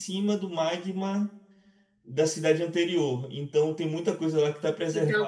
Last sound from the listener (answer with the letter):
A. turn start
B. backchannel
A